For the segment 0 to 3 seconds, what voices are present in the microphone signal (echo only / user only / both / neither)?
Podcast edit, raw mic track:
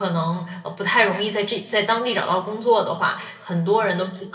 user only